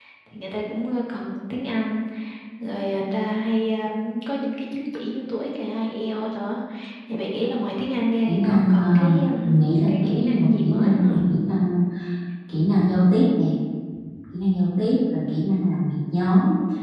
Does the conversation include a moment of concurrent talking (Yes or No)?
Yes